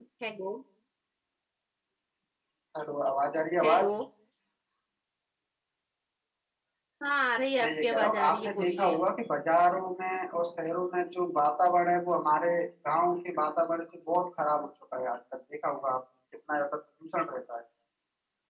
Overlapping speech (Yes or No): Yes